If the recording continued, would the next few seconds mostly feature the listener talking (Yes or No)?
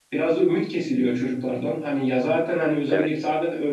No